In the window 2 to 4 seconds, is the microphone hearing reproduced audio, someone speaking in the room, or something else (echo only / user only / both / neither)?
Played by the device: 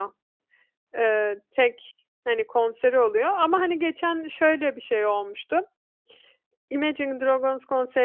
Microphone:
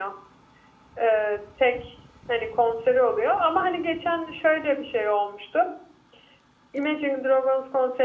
echo only